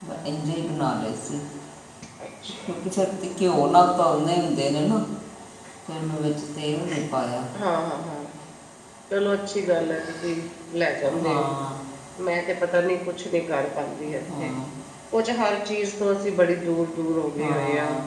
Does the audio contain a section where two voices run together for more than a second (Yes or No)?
No